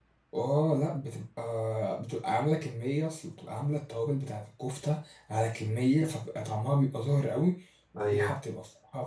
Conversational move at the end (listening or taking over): listening